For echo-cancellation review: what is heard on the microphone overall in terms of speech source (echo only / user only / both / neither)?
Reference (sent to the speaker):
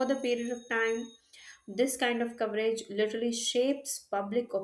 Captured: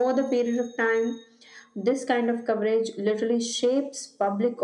echo only